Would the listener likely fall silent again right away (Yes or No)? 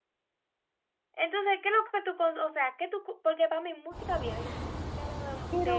Yes